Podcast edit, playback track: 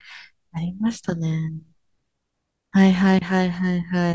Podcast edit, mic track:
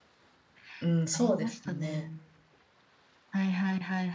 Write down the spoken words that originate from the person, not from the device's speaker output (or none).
うん、そうですよね。